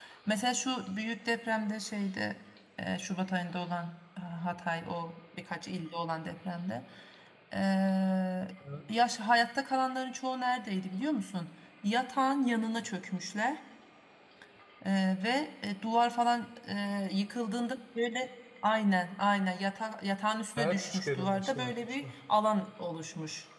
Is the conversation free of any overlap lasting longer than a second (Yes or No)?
No